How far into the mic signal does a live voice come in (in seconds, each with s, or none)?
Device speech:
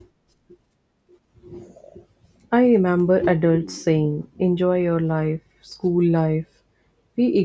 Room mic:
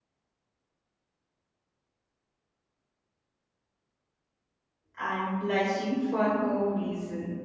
5.0 s